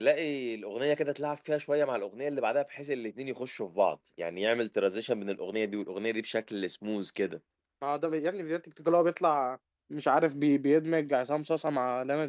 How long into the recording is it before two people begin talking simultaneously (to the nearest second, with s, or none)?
none